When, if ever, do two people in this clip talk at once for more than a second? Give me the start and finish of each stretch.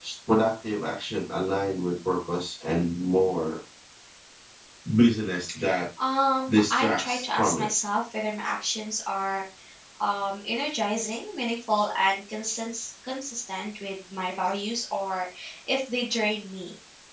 6.5-7.7

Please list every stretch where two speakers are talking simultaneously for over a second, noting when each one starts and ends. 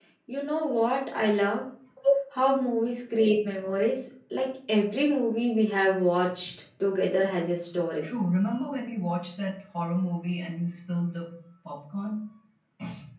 none

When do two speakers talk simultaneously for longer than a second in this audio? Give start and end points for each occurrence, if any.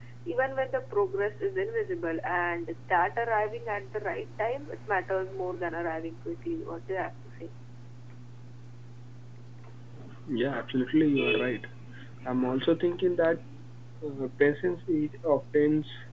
none

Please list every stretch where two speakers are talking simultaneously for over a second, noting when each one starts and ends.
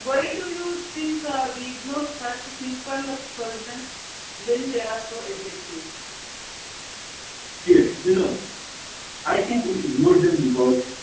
none

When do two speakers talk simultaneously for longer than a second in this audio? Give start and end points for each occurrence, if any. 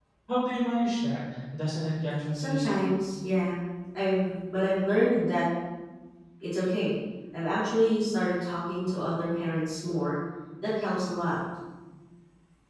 none

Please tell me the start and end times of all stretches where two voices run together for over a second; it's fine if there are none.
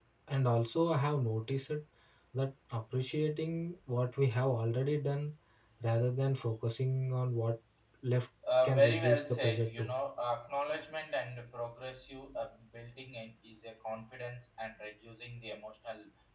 8.6-9.9

